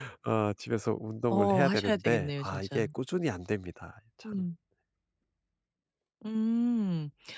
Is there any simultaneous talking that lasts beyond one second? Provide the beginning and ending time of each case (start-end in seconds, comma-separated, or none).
1.3-2.9